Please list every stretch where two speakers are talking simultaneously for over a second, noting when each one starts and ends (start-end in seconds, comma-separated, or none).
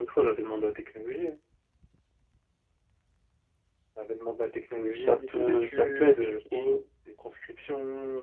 5.0-6.3